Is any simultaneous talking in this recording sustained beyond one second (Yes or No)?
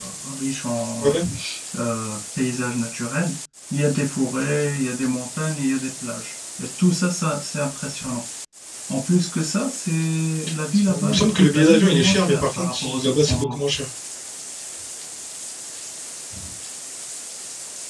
Yes